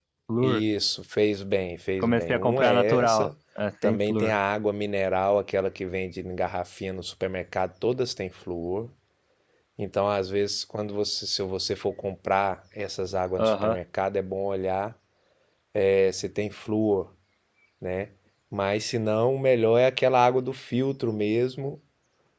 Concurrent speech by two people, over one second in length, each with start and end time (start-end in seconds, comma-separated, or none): 2.0-3.3